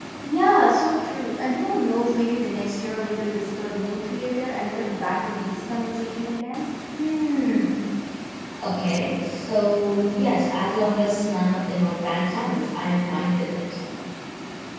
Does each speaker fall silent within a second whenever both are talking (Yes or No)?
Yes